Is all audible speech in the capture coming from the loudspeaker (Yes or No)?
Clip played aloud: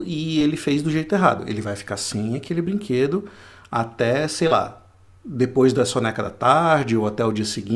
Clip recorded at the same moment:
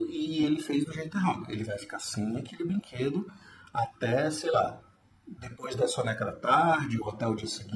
Yes